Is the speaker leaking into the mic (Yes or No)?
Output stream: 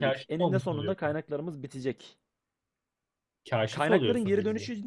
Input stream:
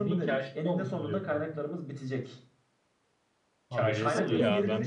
Yes